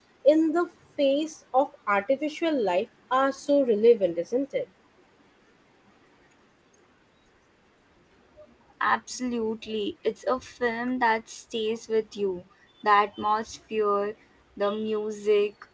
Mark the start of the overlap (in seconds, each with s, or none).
none